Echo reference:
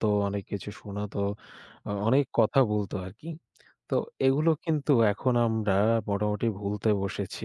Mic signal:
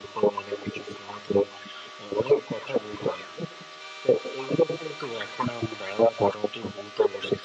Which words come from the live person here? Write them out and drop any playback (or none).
none